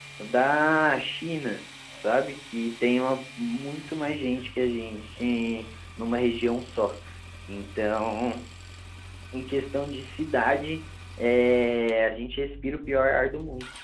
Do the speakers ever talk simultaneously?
No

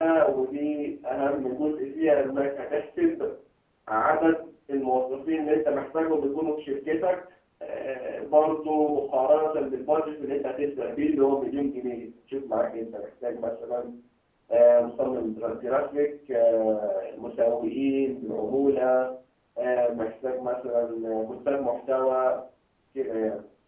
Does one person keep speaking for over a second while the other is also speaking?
No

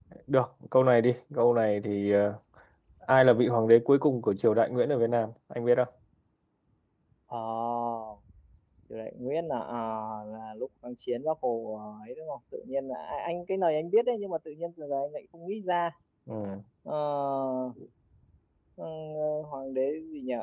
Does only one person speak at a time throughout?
Yes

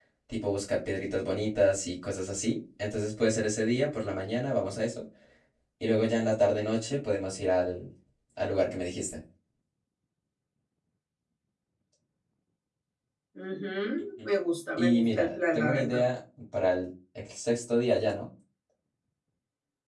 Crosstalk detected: Yes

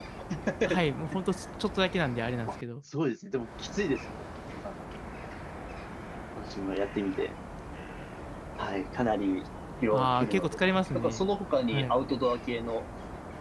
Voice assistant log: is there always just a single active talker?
No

